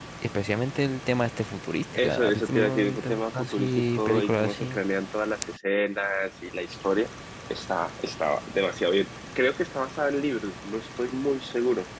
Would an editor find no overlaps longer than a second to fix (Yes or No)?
No